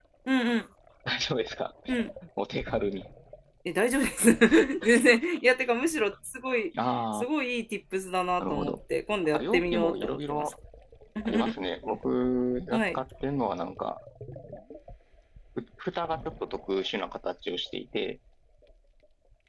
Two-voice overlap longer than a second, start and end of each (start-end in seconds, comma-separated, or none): 9.2-10.5